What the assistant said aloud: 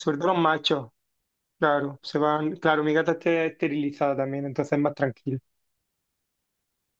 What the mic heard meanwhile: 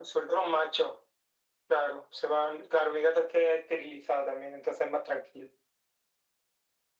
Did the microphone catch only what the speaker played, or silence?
Yes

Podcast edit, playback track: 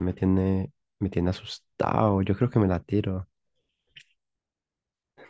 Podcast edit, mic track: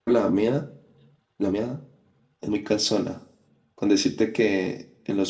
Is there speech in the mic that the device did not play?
Yes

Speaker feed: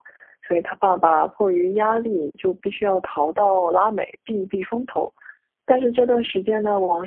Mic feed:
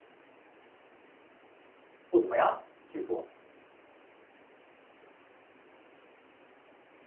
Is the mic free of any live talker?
No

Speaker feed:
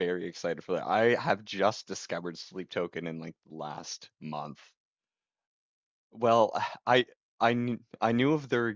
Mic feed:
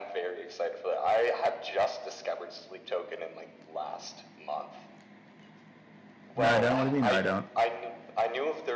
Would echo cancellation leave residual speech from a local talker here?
Yes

